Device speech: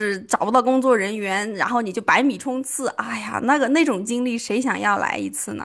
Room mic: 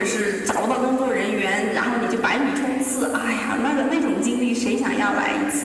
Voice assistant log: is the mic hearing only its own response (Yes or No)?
Yes